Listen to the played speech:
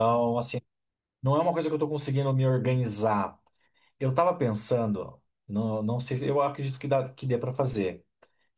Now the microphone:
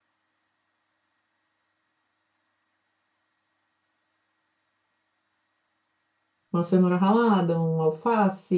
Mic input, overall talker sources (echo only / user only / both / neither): user only